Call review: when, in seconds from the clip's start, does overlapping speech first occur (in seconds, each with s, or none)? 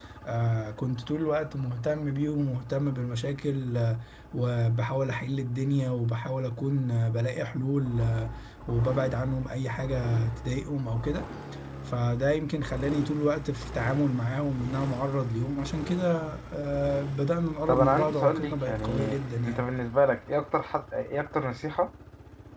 17.7 s